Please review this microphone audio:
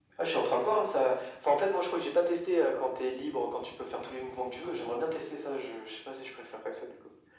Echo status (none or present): present